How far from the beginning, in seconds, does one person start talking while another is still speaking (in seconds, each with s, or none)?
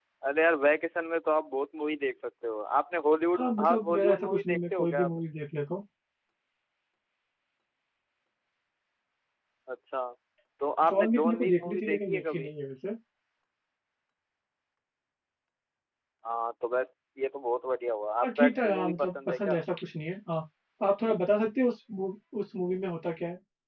3.3 s